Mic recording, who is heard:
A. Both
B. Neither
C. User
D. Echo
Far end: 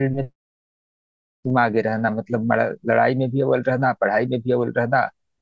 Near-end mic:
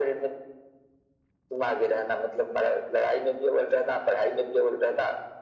D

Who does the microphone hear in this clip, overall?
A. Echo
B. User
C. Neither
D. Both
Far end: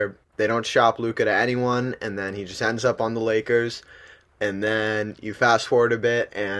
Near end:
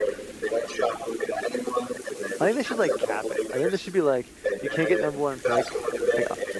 D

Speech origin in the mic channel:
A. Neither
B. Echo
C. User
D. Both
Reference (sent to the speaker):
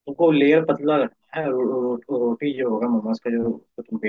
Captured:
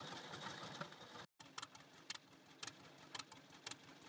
A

